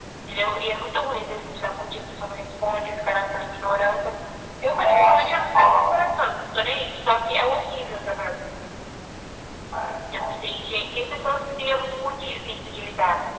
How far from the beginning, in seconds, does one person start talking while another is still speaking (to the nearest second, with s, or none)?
5 s